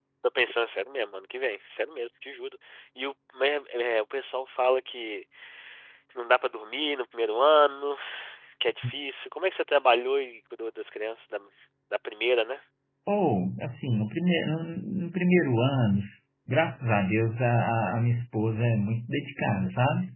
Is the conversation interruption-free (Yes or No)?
Yes